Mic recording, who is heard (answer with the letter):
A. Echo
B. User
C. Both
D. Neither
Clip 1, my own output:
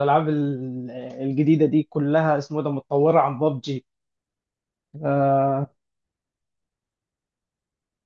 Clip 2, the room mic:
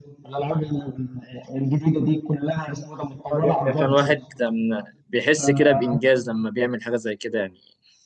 C